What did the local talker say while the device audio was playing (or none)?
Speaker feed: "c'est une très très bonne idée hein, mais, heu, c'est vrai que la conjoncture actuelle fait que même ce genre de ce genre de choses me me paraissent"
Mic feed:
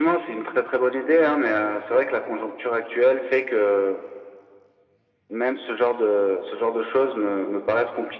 none